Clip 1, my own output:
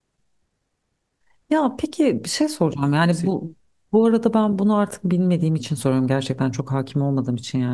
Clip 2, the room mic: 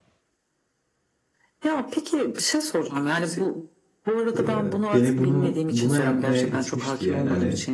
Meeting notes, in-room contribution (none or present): present